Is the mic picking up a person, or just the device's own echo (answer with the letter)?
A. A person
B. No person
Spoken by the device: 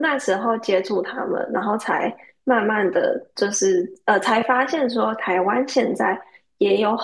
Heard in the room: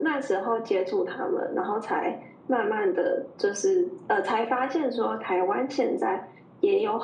B